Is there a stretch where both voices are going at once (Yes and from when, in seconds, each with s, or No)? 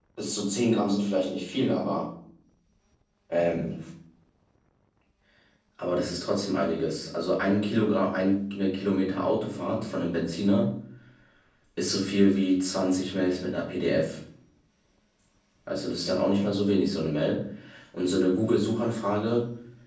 No